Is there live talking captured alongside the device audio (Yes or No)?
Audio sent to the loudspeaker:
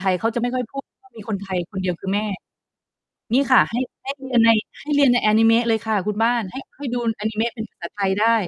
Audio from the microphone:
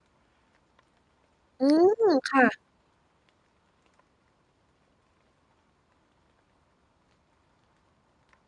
Yes